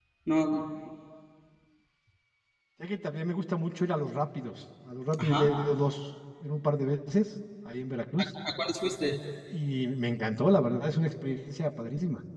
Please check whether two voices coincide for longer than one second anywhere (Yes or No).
No